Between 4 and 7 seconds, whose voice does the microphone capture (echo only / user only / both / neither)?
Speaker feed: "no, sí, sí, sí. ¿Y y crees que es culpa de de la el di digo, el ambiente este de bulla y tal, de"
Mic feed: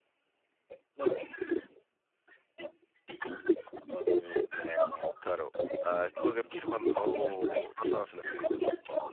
both